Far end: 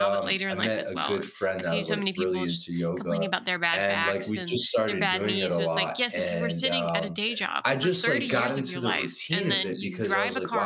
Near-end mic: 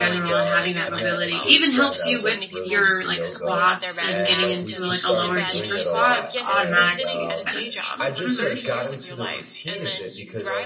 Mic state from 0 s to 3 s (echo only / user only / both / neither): both